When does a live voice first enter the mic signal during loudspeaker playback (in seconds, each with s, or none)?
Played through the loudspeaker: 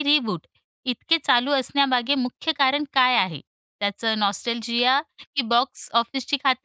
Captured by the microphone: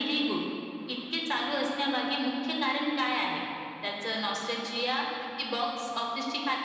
none